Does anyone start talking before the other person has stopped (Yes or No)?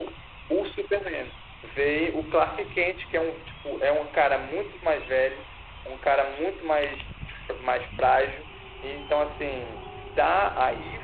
No